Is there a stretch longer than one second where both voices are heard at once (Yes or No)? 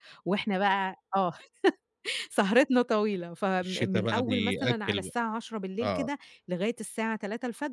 Yes